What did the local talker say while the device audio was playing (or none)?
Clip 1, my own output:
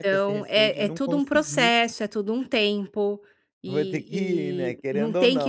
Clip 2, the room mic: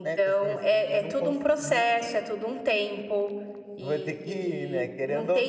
none